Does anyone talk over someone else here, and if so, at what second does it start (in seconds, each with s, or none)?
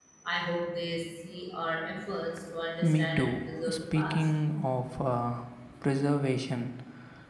2.8 s